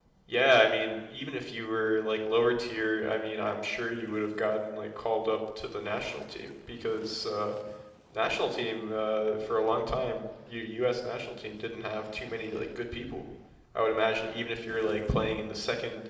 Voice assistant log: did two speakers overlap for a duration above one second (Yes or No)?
No